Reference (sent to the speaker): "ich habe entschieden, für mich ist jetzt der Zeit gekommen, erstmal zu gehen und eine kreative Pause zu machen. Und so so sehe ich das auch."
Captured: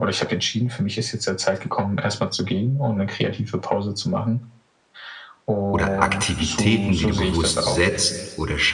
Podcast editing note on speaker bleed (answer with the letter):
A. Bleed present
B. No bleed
A